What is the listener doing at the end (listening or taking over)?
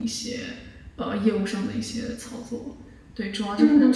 taking over